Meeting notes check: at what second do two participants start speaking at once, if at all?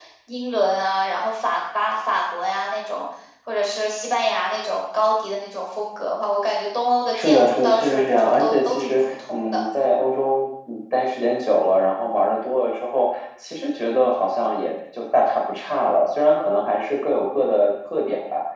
7.1 s

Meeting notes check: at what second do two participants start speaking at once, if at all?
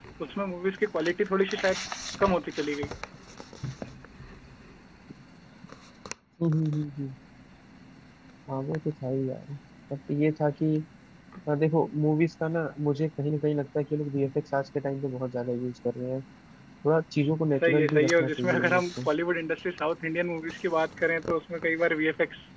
17.5 s

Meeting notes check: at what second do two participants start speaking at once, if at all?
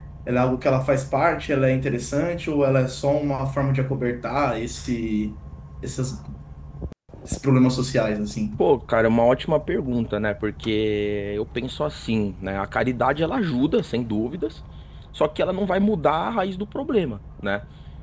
none

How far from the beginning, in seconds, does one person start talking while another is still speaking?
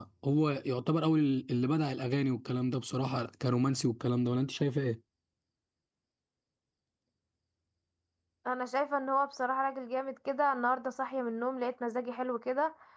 none

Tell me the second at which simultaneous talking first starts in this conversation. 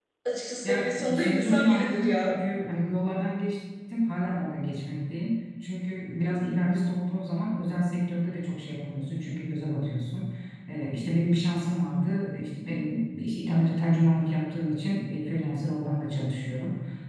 0.6 s

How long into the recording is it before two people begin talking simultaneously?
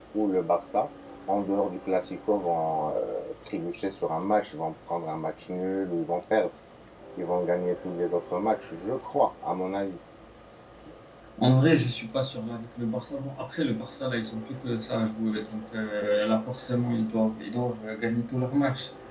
none

